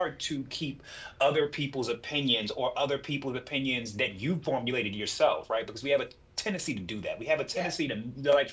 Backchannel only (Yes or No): Yes